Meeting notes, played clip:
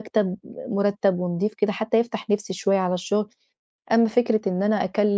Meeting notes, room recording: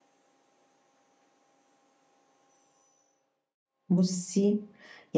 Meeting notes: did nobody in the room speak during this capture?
No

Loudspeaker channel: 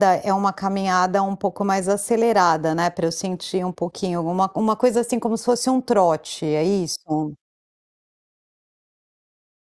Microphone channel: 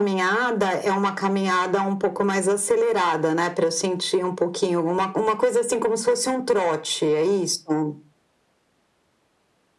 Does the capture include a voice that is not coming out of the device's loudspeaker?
No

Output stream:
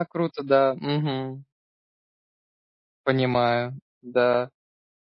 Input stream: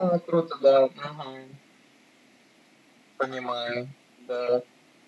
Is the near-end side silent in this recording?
Yes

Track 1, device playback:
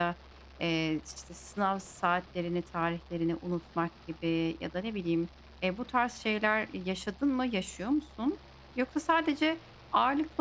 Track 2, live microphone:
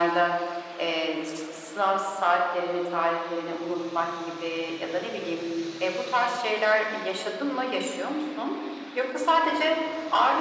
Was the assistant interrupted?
No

